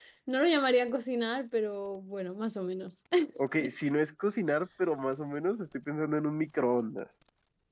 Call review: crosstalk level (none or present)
none